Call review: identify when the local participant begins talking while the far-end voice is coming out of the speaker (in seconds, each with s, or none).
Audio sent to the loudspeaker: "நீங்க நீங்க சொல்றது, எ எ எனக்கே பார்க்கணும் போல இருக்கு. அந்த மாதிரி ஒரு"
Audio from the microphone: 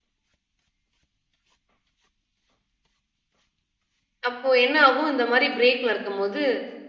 4.3 s